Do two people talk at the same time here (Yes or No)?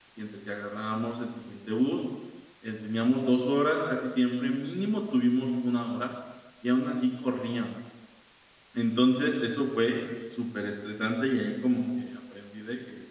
No